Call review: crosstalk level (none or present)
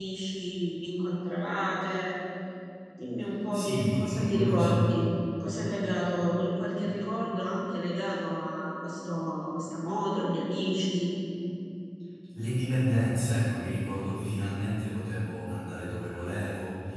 present